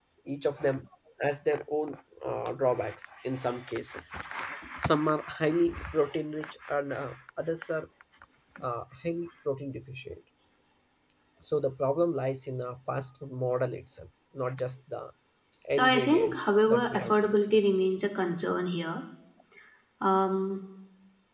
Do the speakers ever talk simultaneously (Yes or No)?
Yes